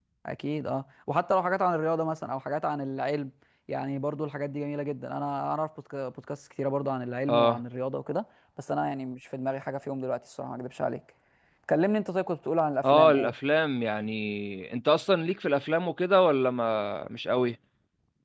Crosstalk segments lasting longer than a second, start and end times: none

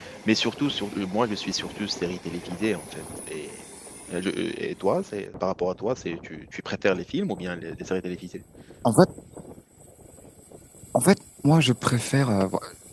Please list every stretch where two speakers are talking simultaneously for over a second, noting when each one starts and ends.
none

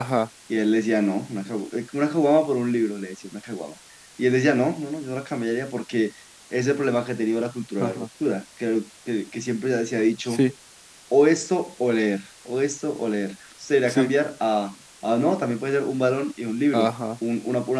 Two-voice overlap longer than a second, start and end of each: none

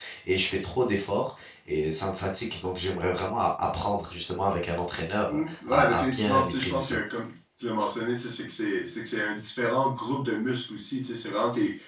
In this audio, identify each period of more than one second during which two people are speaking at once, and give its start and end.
5.3-7.0

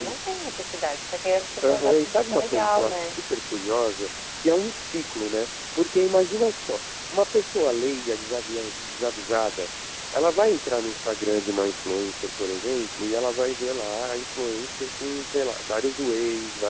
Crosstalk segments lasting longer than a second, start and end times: 1.6-3.2

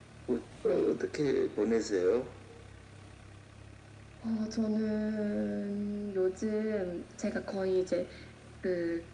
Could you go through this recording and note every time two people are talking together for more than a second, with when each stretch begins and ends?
none

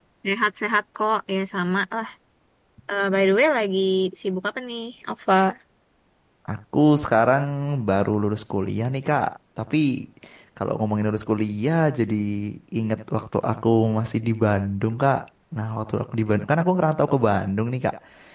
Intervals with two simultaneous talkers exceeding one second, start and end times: none

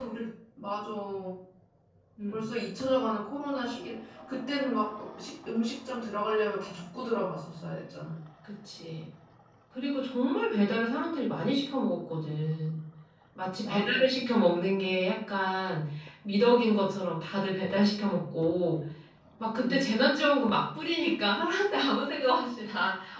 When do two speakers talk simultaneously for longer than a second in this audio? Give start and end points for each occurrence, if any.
none

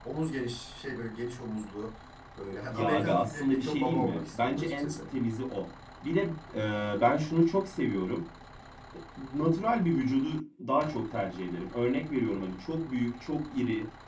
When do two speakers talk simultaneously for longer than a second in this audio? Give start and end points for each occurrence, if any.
2.7-4.9

